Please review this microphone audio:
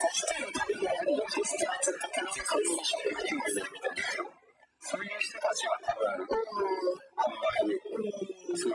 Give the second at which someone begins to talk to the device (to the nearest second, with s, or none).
none